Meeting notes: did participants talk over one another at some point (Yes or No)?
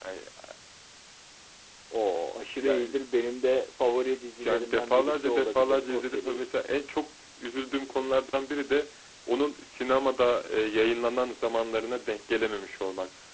Yes